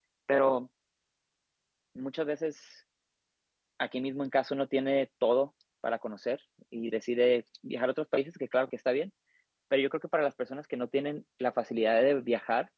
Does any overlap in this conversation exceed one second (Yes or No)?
No